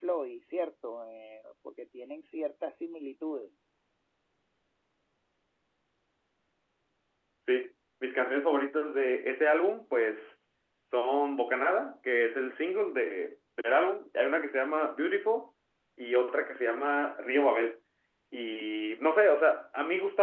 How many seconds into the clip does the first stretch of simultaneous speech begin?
none

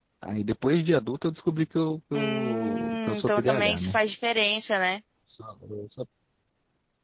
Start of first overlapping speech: 2.1 s

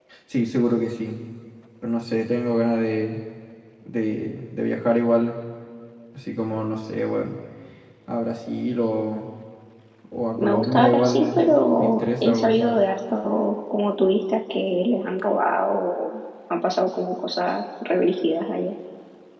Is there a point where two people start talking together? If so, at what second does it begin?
10.4 s

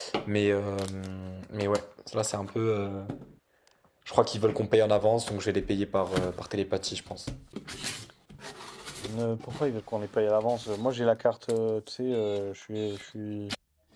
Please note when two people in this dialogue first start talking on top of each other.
none

